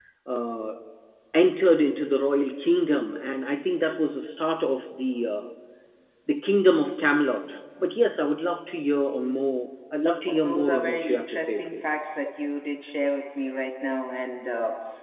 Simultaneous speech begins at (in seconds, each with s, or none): 10.3 s